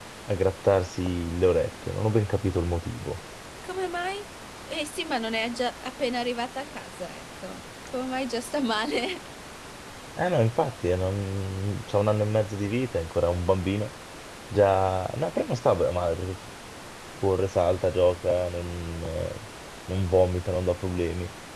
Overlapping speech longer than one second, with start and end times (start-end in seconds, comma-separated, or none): none